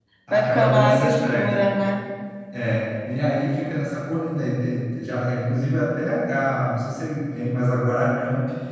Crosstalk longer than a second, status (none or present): present